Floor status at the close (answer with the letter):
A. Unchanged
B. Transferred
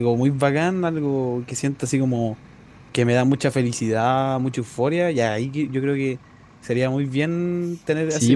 B